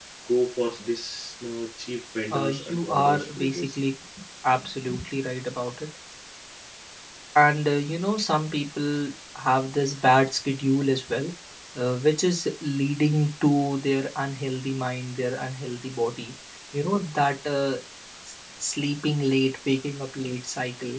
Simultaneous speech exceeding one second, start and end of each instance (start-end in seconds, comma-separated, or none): 2.3-3.8